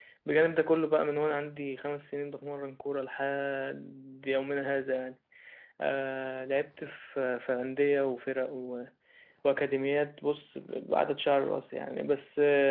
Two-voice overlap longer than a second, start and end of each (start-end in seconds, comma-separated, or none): none